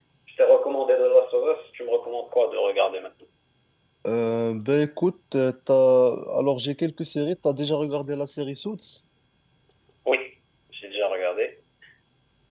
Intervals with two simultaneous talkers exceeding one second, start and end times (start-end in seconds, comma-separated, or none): none